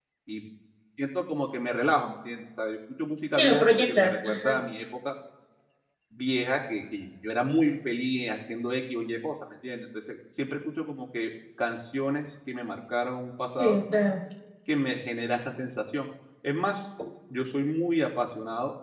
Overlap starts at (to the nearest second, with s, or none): 3 s